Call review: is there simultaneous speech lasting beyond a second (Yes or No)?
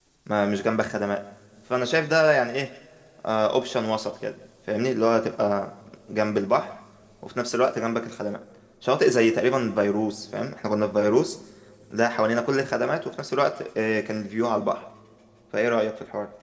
No